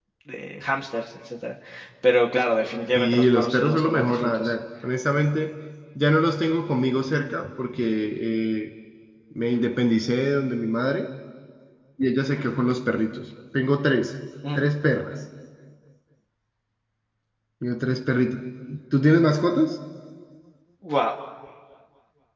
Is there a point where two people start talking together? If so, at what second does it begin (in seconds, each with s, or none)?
3.0 s